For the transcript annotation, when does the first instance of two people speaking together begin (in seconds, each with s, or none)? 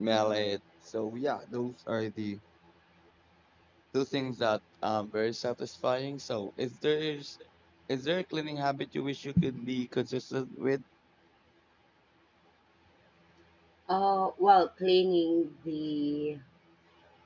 none